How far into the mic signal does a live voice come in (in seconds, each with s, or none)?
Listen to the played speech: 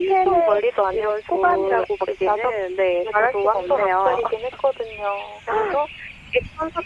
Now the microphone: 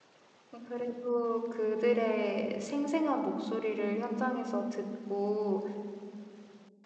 0.5 s